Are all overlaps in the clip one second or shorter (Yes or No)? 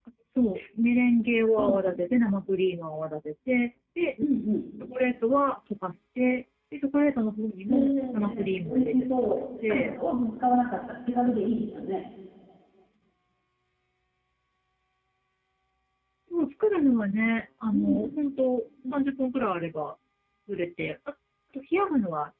No